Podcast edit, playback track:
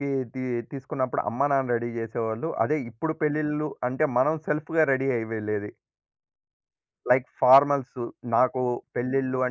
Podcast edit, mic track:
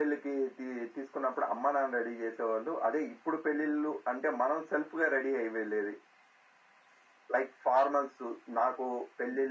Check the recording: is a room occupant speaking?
No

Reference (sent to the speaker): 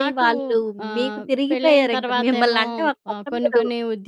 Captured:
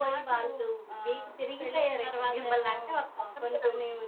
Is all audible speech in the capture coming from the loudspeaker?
Yes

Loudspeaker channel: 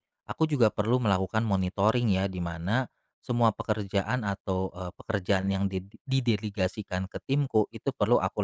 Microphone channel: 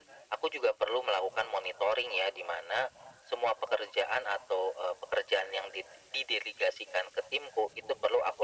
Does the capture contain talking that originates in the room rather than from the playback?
No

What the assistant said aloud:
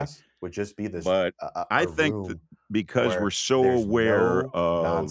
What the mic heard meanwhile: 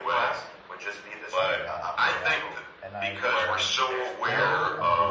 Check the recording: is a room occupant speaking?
Yes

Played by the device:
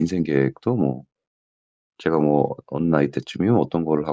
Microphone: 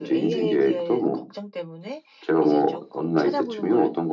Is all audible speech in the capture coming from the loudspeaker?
No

